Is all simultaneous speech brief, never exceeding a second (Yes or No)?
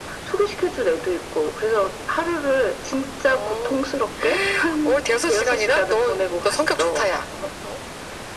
No